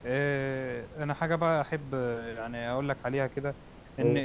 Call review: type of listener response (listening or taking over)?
listening